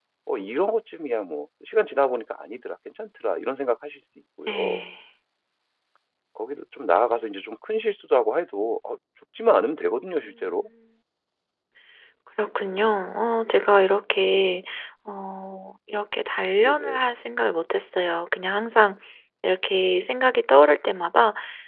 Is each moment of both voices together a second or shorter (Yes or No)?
Yes